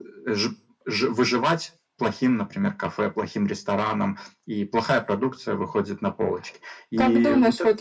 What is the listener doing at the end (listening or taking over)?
taking over